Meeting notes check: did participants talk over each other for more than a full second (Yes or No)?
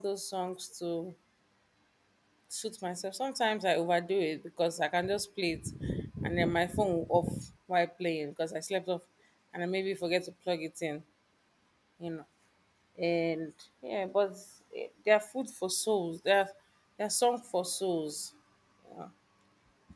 No